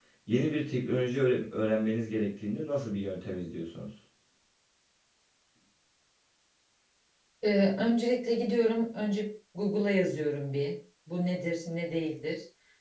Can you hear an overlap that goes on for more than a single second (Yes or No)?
No